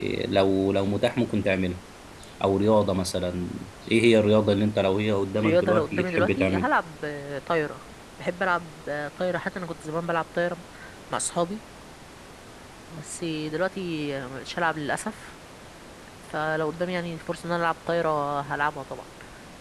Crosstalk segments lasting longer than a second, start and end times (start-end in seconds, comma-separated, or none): 5.4-6.7